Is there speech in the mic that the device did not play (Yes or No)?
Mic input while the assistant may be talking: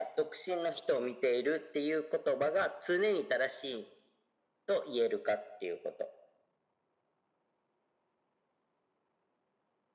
No